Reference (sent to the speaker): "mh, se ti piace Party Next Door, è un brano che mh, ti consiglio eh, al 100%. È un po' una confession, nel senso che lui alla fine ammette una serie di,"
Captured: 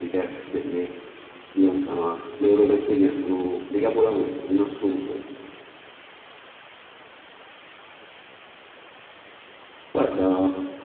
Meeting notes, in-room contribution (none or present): present